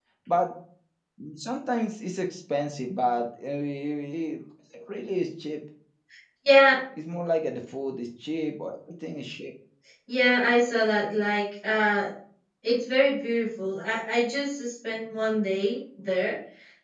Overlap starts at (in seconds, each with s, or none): none